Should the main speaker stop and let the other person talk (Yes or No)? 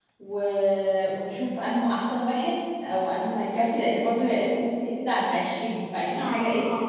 Yes